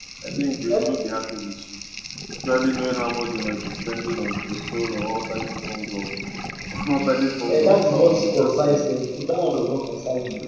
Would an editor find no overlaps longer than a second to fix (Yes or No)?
No